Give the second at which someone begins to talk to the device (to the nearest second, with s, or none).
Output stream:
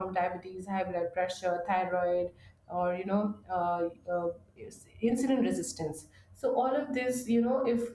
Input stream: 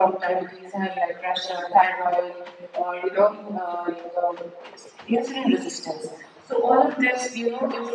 none